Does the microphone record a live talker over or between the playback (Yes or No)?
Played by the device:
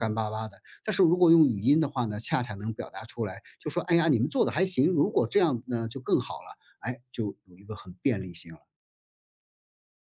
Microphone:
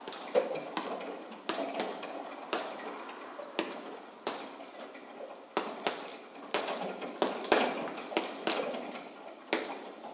No